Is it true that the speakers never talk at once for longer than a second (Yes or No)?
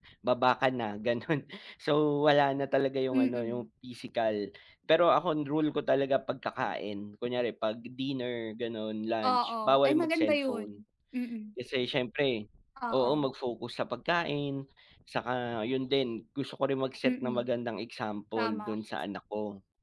No